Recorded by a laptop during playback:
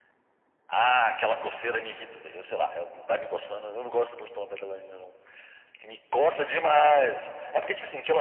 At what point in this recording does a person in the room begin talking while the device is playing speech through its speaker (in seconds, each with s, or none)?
none